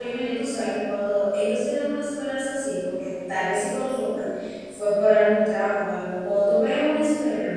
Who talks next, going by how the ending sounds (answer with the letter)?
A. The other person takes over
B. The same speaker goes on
B